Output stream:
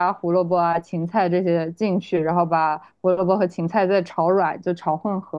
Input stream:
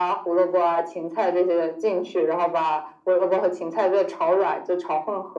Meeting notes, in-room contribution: none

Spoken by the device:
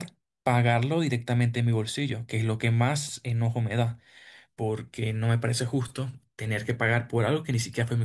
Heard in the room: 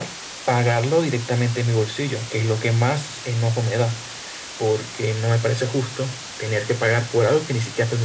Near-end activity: none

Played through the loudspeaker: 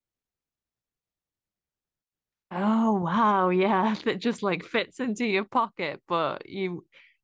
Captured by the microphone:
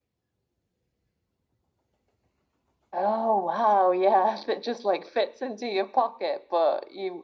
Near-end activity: none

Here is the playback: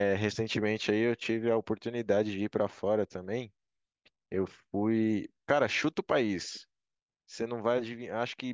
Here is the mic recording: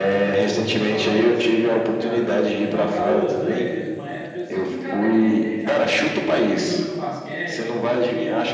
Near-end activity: present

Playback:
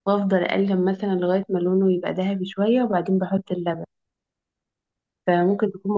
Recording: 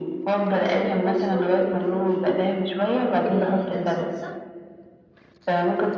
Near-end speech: present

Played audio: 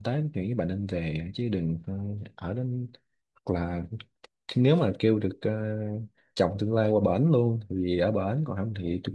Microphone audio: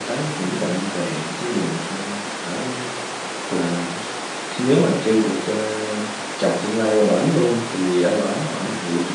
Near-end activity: none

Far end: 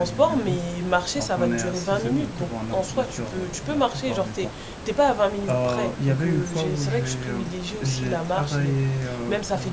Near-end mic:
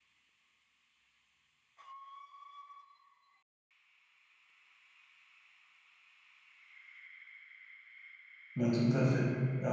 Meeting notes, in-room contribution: present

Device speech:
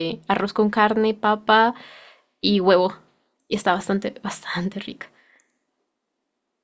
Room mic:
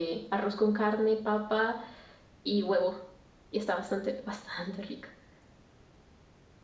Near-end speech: none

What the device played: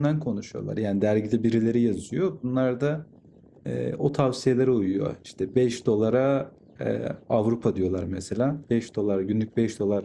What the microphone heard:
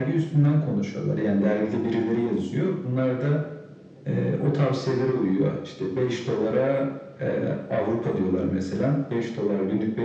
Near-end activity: none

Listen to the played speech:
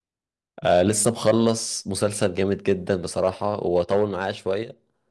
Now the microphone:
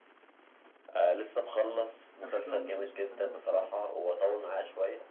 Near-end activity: present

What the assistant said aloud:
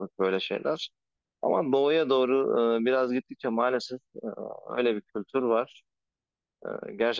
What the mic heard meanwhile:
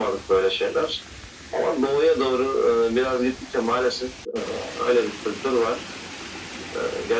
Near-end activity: none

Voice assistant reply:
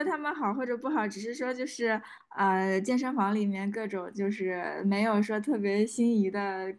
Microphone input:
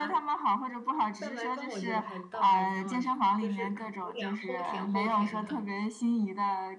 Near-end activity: present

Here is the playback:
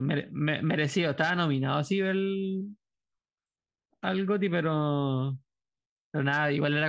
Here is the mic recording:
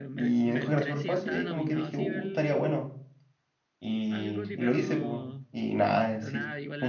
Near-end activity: present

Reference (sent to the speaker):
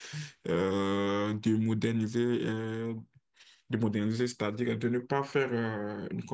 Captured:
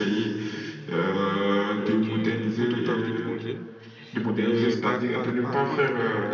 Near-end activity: present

